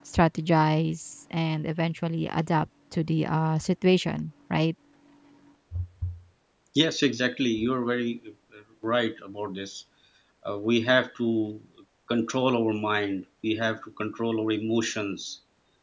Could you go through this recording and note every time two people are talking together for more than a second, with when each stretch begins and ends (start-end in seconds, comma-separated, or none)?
none